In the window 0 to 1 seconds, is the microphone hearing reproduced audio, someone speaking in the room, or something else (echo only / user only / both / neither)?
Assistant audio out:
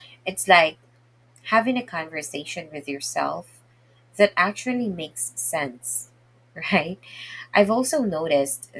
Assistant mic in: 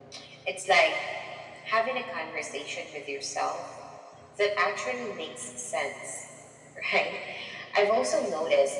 echo only